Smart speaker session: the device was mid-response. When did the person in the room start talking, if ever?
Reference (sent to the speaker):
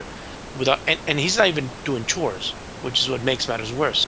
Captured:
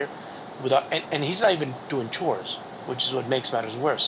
none

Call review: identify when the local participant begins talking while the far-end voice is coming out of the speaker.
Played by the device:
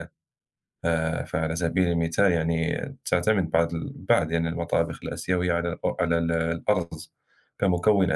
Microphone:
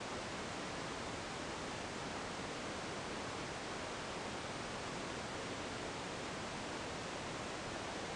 none

